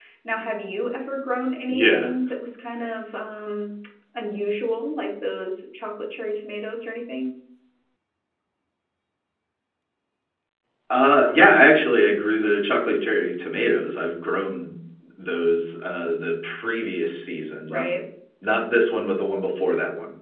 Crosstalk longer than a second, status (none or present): none